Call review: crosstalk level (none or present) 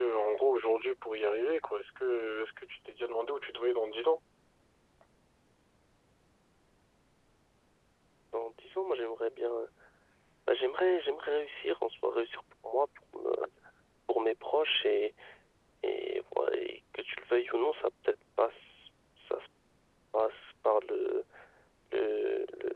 none